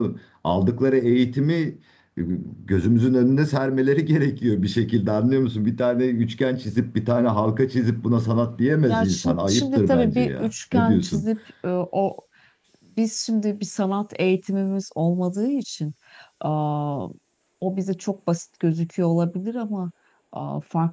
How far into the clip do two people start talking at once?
9 s

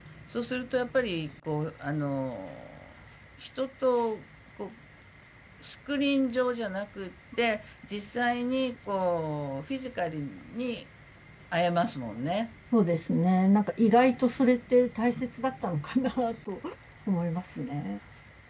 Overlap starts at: none

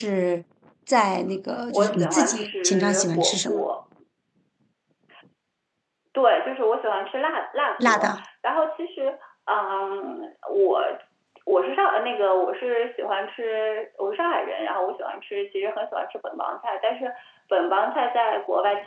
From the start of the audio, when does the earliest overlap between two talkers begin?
2 s

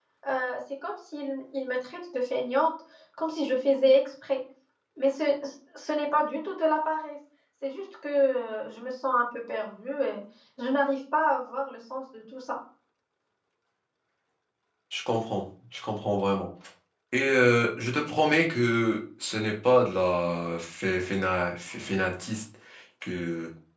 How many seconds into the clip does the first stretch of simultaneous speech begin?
none

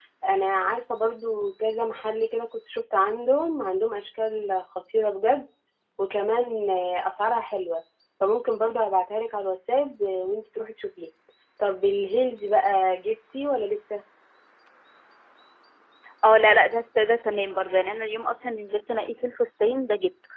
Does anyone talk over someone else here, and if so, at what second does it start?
none

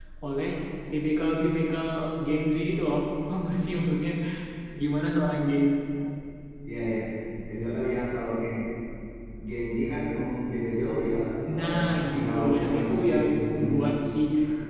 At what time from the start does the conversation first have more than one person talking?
12 s

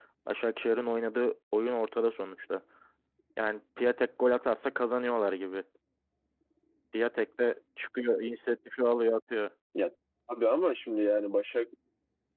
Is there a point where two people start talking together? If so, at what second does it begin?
none

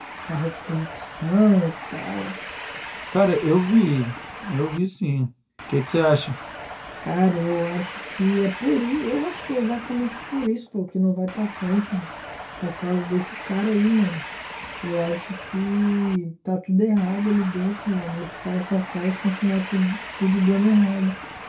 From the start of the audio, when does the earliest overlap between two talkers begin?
none

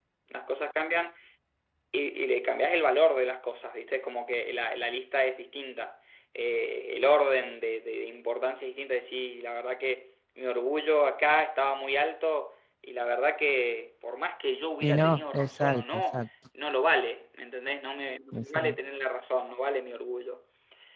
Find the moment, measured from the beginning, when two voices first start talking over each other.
15 s

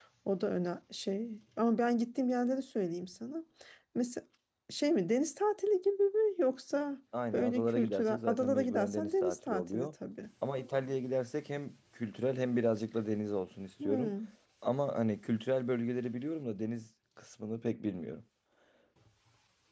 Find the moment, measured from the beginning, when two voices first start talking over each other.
7 s

